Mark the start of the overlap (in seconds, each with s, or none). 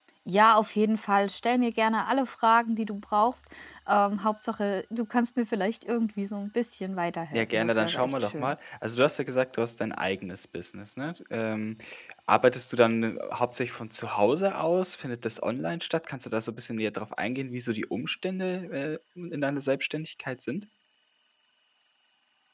7.3 s